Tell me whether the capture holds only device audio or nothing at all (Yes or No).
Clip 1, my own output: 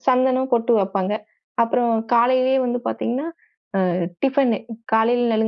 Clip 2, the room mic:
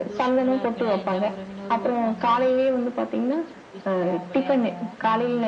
No